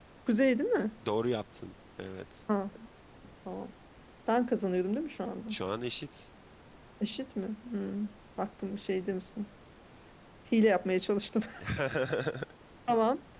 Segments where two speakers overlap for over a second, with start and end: none

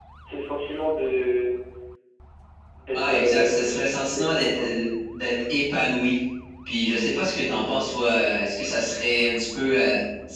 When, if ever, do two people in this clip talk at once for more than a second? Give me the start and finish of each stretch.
2.9-4.7

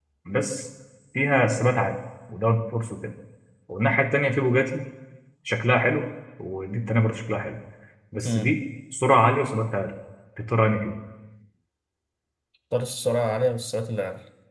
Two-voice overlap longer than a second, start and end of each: none

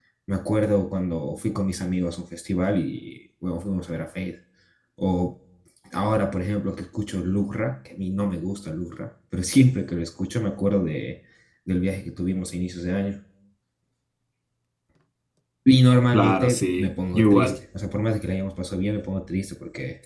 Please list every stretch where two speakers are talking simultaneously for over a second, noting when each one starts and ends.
16.1-17.6

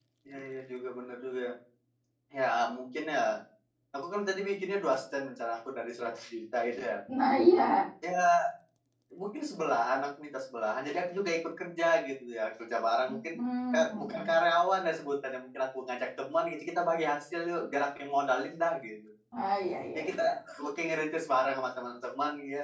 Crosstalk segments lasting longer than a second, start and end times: none

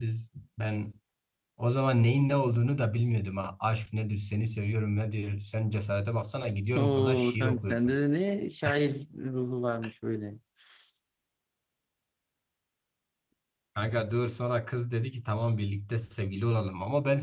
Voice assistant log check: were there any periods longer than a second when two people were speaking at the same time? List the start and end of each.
6.8-8.0

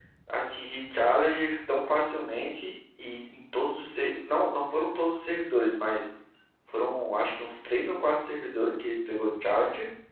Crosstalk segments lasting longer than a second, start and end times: none

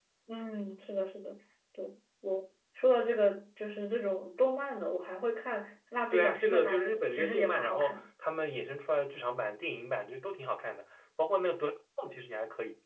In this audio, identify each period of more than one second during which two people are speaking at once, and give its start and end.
6.1-8.0

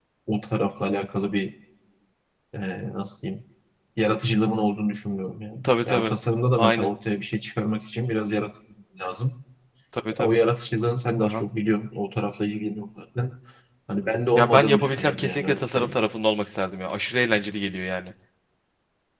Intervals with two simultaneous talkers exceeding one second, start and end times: 14.3-16.0

